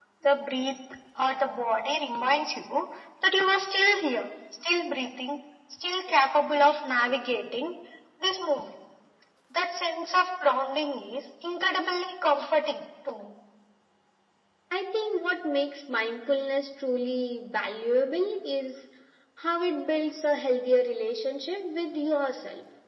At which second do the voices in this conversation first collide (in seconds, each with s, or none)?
none